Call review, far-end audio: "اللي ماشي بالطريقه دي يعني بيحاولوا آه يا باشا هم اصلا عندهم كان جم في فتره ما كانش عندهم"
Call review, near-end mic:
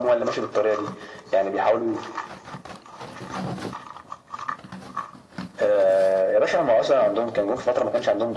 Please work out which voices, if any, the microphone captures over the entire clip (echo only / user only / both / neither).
echo only